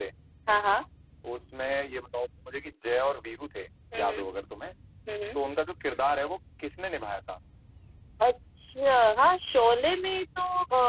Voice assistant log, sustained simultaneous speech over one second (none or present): none